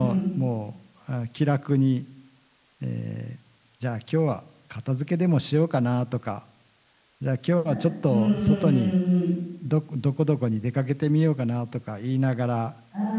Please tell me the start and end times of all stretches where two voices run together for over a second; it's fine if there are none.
7.6-8.9

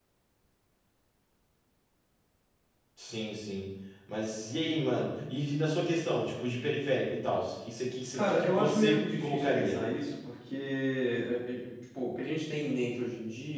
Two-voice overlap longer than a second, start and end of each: 8.1-9.8

